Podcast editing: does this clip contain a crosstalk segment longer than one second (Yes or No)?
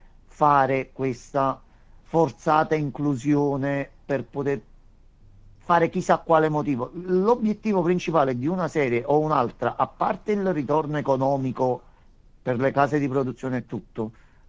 No